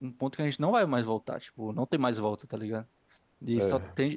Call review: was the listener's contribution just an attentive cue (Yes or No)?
Yes